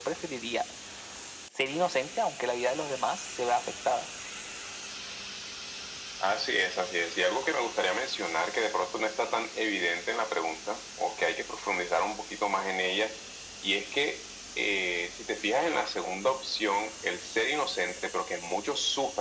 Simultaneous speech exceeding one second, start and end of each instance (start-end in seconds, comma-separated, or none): none